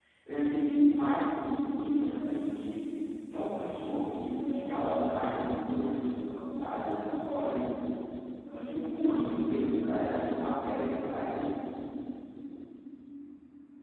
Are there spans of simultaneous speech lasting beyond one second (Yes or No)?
No